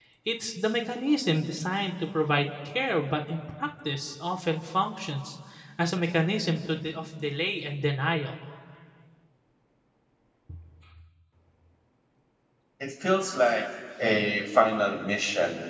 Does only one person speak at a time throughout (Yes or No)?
Yes